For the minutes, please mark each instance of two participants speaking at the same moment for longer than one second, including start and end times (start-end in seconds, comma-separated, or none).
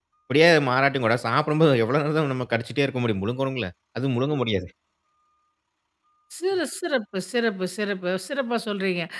none